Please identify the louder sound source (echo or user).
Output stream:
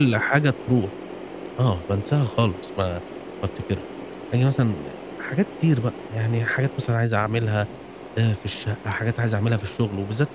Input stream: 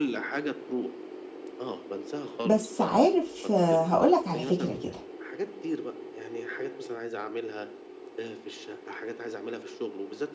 user